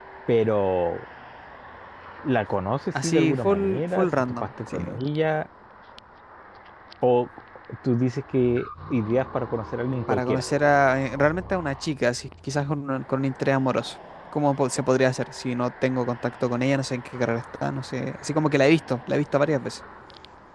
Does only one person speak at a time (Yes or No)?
No